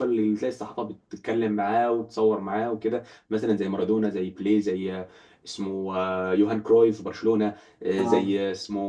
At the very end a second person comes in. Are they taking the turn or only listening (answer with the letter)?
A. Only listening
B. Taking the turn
A